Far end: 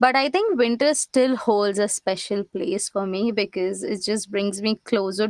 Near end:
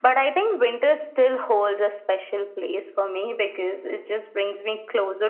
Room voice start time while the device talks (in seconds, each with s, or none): none